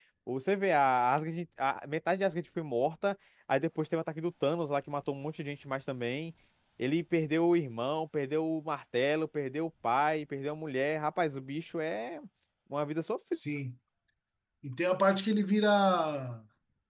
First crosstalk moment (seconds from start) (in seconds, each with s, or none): none